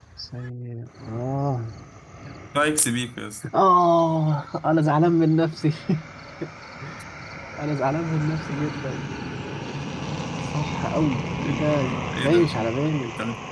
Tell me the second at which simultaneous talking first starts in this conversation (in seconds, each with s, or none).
11.3 s